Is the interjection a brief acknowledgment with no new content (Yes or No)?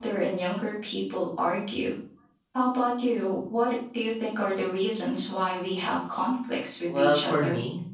No